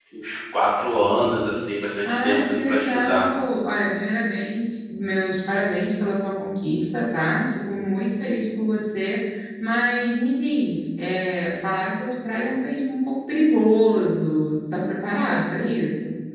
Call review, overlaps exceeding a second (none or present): present